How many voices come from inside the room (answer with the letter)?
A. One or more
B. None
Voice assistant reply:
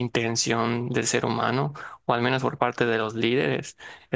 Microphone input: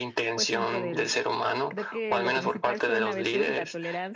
A